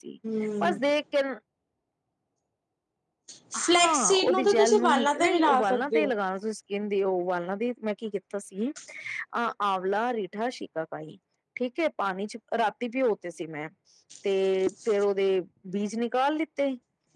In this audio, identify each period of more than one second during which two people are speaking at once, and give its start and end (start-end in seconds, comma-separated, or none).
3.8-6.1